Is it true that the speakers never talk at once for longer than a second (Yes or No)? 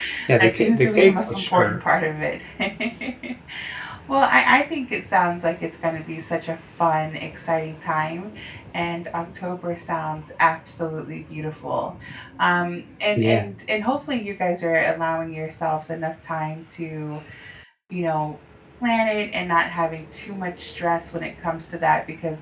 No